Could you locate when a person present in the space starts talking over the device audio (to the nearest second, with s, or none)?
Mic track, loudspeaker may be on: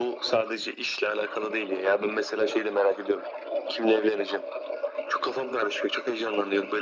none